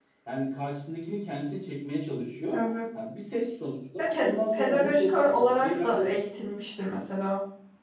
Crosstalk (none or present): present